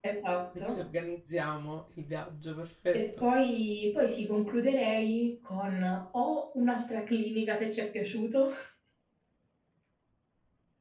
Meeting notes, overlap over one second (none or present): none